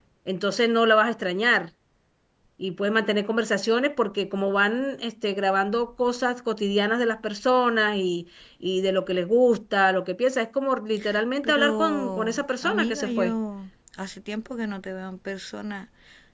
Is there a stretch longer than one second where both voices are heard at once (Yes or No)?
Yes